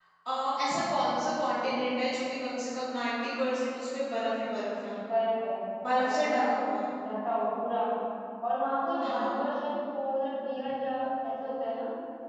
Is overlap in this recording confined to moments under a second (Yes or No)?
Yes